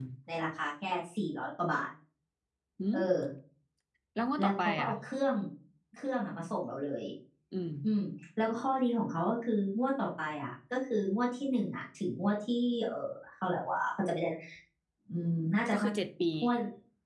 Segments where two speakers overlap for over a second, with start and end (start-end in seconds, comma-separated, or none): none